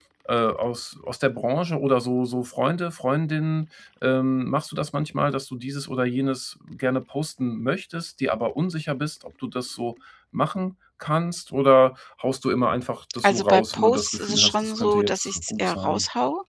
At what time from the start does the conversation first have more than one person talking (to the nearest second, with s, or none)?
13 s